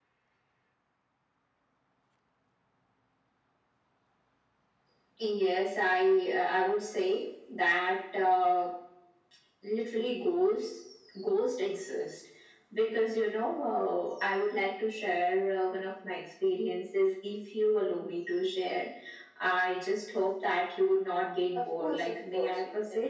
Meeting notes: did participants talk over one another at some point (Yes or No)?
Yes